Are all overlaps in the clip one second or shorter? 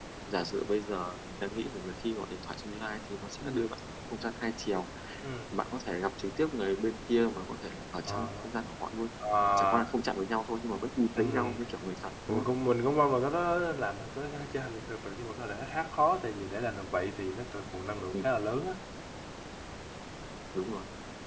Yes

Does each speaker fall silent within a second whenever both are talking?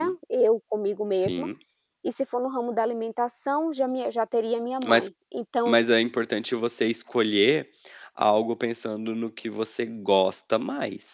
Yes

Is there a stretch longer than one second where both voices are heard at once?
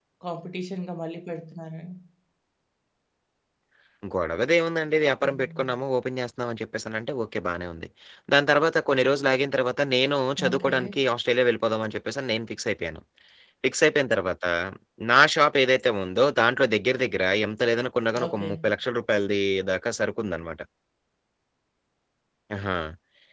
No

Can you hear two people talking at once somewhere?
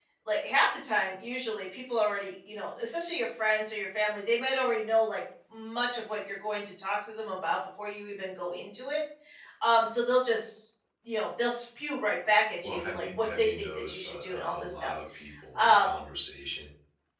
Yes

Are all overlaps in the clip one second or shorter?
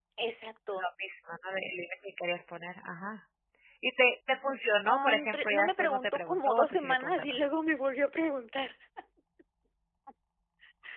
No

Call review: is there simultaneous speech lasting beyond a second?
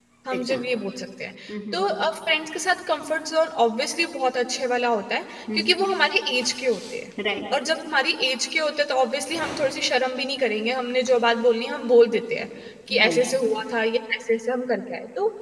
No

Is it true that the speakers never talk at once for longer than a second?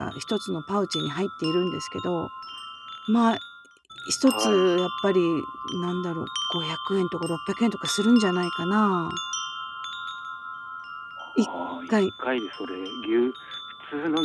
Yes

